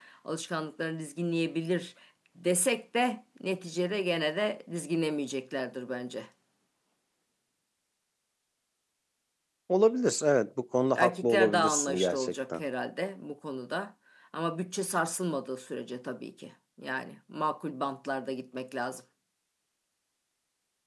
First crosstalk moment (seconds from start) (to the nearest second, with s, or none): 11 s